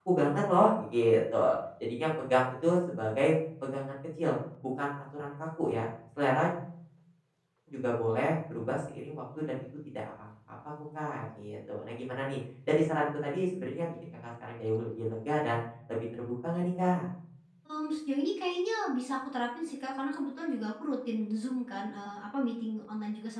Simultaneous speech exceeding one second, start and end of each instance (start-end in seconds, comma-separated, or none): none